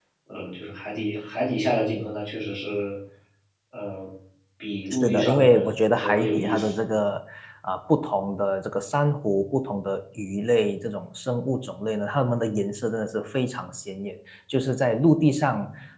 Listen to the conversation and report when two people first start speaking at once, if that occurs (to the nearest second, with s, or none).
5 s